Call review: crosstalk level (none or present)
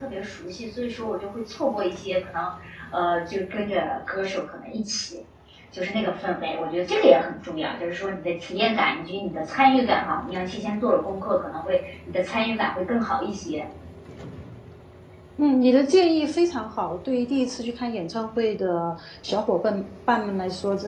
none